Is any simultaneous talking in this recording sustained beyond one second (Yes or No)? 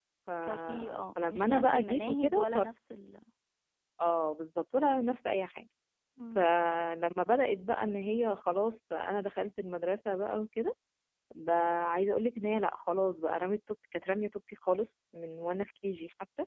Yes